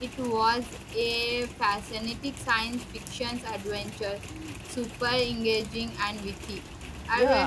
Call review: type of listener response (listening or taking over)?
taking over